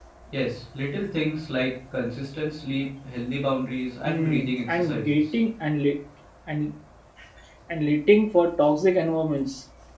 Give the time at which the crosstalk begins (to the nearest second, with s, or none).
4 s